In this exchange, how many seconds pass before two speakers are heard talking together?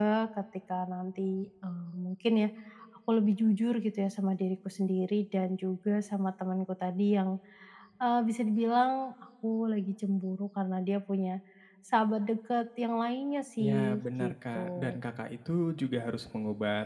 13.6 s

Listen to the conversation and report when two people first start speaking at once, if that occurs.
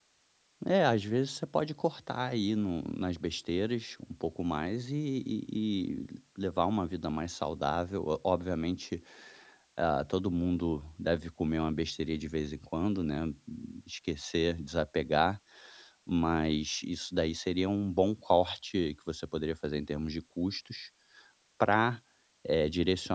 none

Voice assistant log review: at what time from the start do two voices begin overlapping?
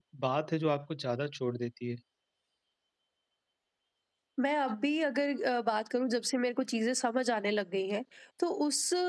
none

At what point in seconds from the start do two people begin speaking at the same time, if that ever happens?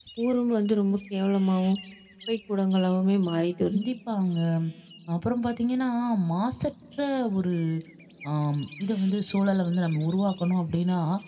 none

